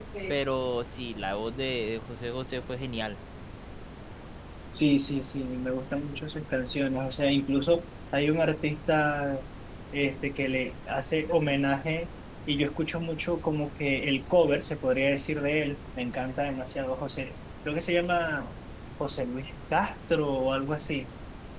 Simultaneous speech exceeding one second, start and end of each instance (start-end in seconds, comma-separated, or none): none